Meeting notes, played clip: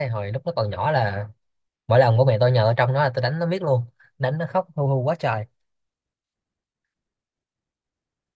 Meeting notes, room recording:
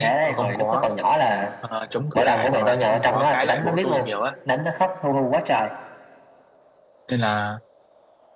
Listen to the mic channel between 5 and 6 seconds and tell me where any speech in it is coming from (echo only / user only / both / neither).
echo only